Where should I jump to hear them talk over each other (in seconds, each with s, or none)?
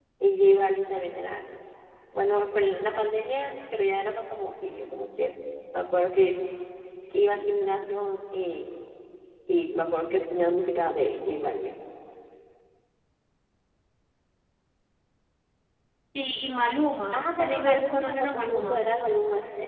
17.1 s